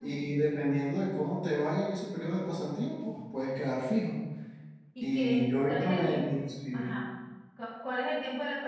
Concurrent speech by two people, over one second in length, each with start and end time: 5.0-6.3

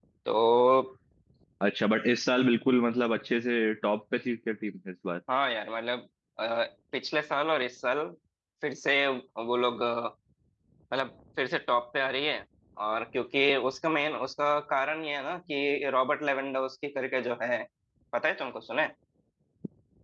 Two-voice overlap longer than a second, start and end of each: none

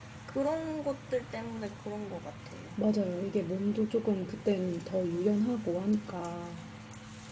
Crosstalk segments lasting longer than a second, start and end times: none

